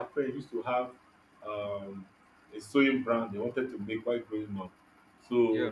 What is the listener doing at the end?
listening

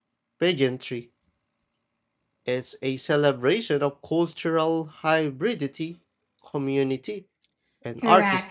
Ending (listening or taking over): taking over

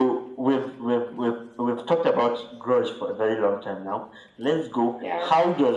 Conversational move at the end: listening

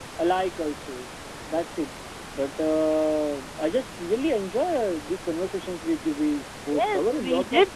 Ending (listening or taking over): taking over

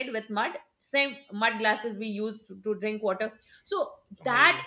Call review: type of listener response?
listening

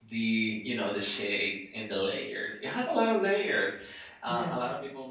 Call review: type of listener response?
listening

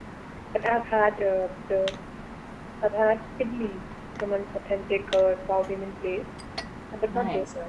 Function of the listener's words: listening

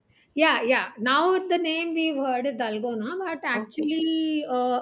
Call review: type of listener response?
listening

